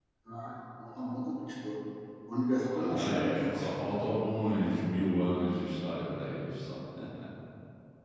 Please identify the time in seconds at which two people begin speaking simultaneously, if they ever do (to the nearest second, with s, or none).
3 s